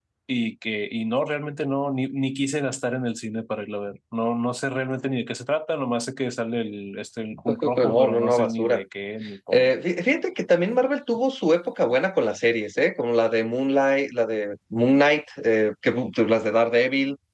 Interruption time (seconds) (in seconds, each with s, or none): 7.5 s